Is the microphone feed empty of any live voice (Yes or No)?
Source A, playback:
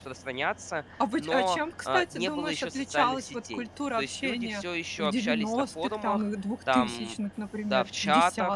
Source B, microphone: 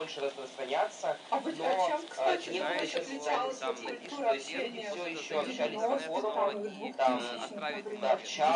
No